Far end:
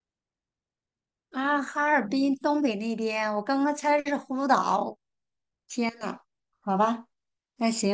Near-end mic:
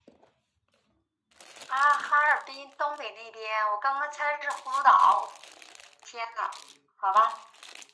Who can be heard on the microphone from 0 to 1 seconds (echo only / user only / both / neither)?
neither